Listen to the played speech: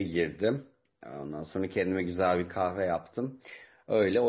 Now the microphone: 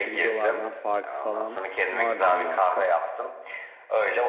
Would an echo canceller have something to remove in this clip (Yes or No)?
Yes